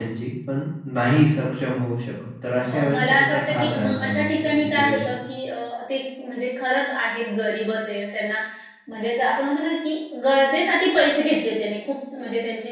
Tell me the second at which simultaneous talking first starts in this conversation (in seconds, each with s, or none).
2.6 s